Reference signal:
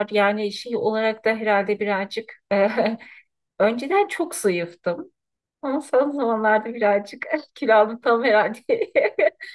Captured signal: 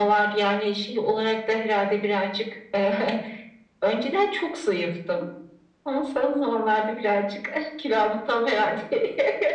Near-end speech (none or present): none